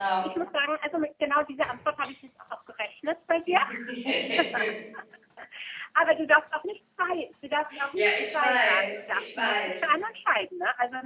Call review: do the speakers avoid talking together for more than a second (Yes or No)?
No